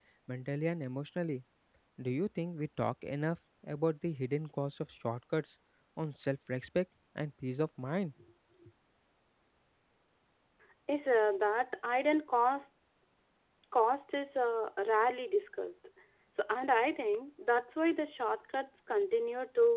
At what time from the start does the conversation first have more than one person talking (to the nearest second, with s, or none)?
none